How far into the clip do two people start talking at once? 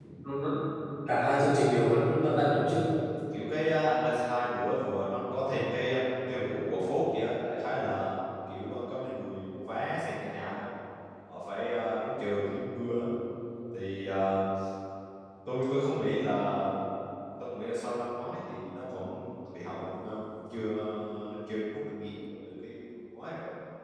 none

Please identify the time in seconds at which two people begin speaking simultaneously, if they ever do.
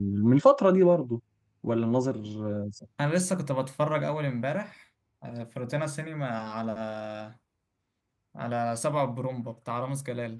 none

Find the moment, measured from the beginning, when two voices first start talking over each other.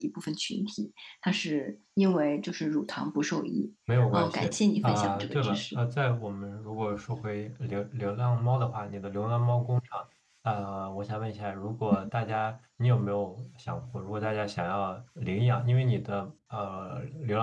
4 s

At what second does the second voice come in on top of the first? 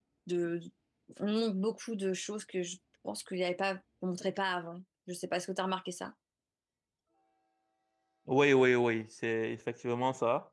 none

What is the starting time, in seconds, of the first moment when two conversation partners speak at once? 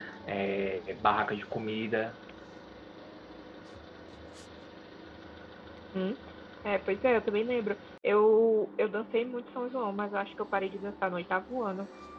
none

